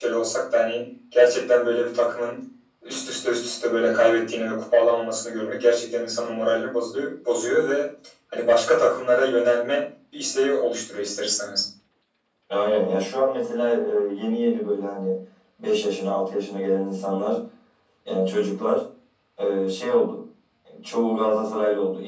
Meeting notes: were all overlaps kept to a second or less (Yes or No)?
Yes